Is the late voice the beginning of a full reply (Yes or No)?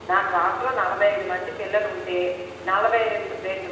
No